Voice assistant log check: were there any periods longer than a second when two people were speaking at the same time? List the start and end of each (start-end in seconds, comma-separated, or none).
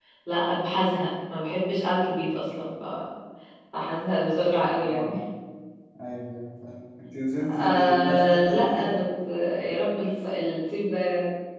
7.6-8.9